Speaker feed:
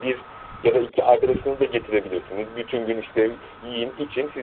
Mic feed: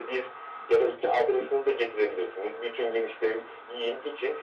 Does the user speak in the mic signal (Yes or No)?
No